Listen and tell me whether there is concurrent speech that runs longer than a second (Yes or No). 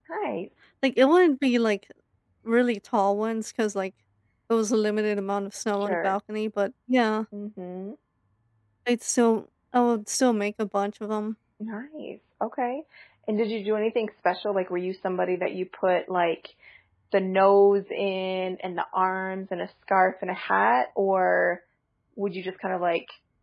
No